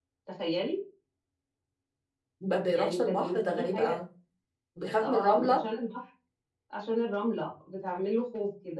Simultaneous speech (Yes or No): Yes